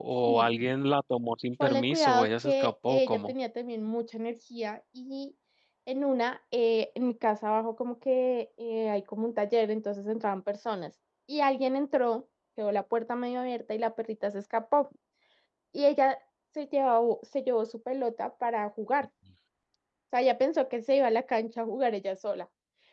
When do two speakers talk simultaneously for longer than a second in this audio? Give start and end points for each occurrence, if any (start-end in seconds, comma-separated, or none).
1.6-3.3